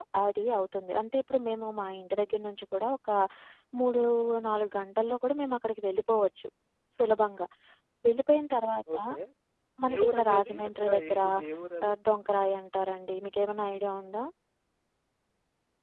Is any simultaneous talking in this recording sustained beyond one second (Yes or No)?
Yes